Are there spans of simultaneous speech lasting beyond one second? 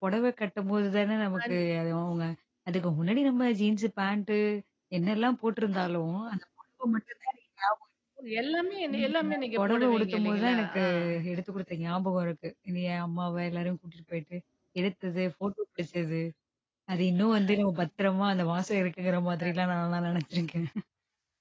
Yes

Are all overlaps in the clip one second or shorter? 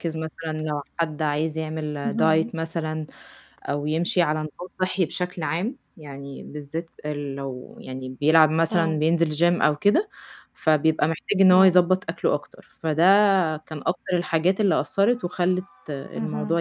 Yes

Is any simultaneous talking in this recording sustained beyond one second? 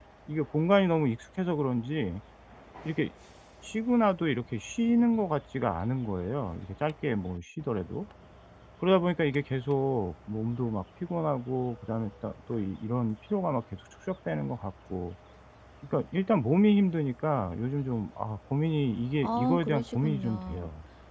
Yes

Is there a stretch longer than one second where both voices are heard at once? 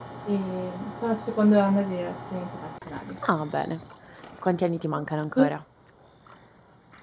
No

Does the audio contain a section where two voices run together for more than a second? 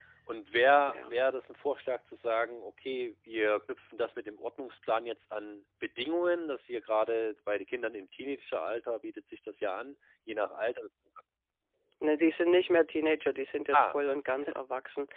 No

